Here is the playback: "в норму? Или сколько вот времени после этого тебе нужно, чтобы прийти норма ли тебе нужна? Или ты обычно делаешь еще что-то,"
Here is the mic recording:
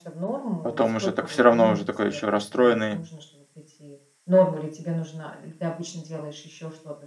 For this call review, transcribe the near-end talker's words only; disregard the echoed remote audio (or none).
Потом уже так всё равно, уже такой еще расстроенный